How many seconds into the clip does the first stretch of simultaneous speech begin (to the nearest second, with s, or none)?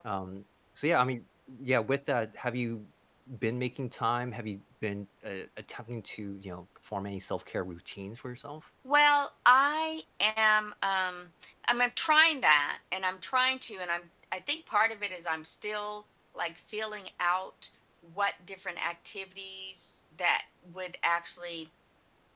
none